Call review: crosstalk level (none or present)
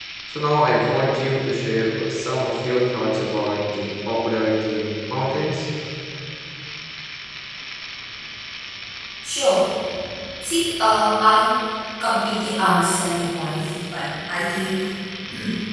none